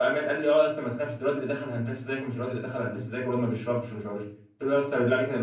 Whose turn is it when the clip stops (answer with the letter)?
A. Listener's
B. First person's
B